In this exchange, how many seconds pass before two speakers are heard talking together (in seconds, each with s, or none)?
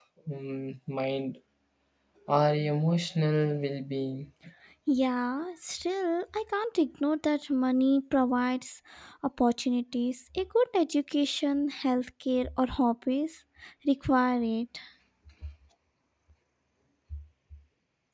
none